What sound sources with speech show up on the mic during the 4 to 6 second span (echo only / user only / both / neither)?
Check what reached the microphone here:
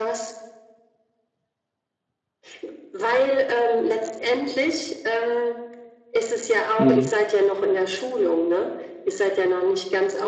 echo only